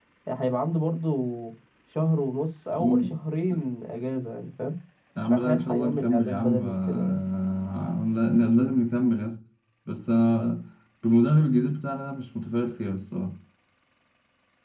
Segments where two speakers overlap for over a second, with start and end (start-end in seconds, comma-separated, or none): 5.3-7.2